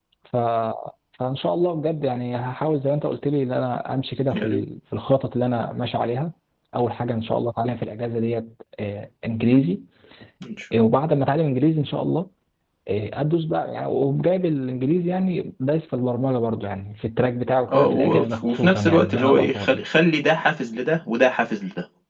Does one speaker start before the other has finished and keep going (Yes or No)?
Yes